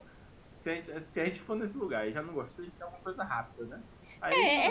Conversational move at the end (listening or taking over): taking over